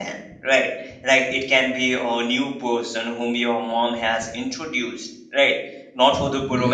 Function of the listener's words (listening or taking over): listening